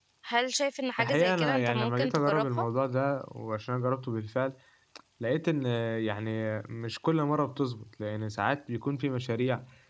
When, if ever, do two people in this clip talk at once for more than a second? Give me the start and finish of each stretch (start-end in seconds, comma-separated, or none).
1.0-2.6